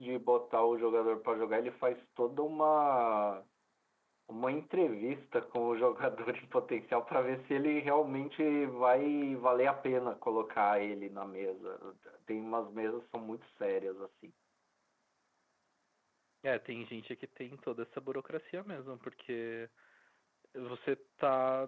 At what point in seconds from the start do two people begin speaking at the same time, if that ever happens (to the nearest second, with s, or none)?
none